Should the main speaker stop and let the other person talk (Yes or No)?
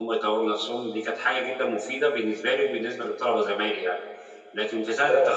Yes